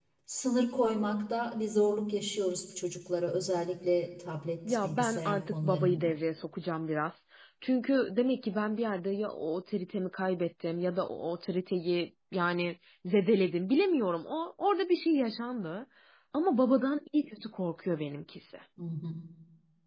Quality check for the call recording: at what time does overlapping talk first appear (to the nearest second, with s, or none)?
5 s